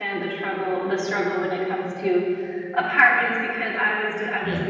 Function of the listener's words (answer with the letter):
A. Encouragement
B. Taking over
A